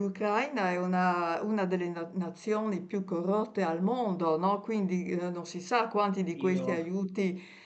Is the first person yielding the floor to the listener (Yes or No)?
No